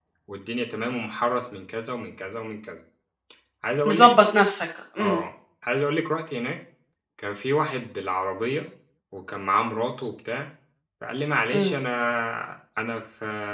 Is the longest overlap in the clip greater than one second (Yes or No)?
No